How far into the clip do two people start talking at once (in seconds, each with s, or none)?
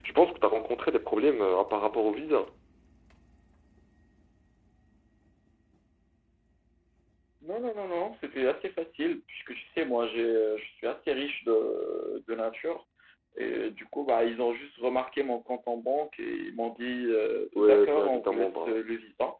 17.6 s